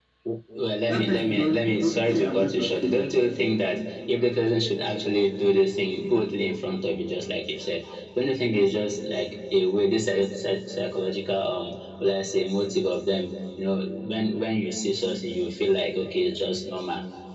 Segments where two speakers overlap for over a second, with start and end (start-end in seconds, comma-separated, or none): 0.9-3.0